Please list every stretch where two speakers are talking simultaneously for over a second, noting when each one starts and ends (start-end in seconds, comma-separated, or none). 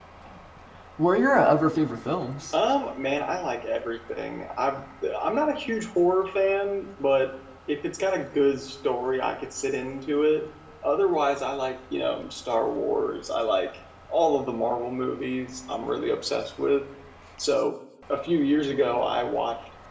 none